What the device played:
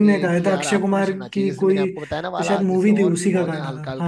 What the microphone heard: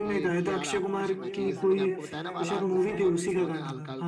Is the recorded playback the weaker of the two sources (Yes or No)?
No